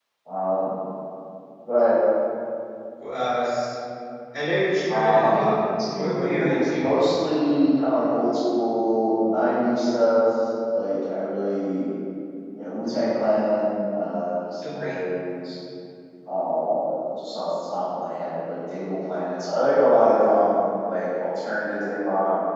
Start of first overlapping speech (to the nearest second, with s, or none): 5 s